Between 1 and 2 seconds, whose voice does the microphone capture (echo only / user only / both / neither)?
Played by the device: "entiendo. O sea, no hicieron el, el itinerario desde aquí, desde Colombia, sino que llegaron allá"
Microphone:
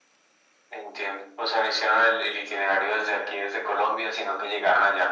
echo only